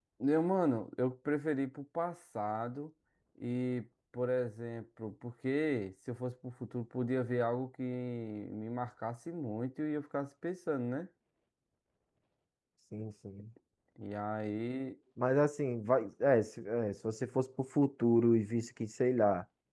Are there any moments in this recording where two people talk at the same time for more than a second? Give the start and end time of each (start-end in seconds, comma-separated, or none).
none